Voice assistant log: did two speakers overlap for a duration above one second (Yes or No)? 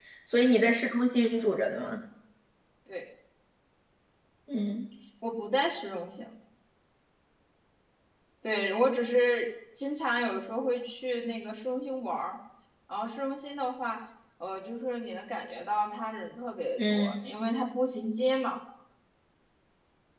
No